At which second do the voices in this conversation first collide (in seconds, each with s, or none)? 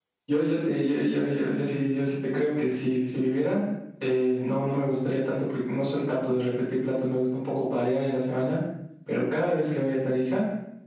none